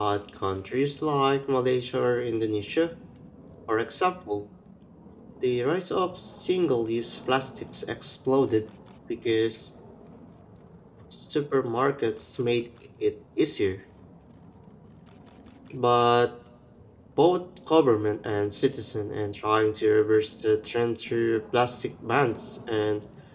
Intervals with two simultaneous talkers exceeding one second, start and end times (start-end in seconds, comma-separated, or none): none